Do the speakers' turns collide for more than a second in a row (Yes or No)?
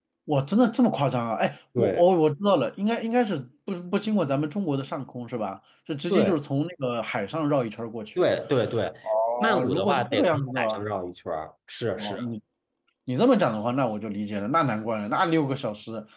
Yes